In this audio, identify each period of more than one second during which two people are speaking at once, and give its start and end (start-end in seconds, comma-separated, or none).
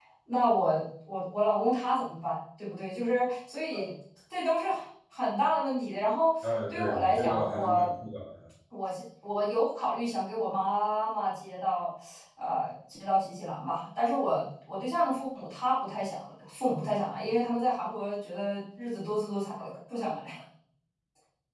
6.7-7.9